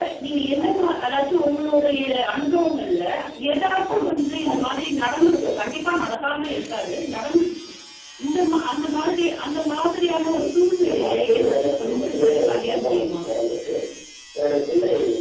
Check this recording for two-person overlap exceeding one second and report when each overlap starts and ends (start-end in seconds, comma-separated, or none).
10.4-13.2